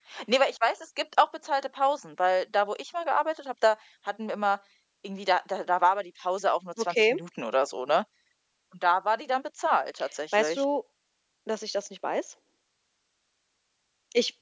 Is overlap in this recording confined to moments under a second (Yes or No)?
Yes